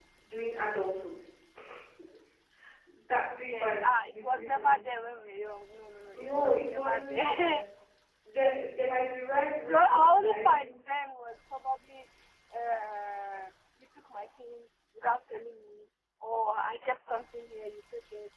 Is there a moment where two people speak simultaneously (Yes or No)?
Yes